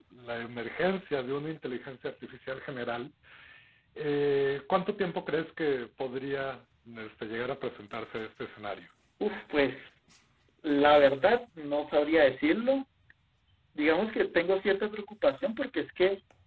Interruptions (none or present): none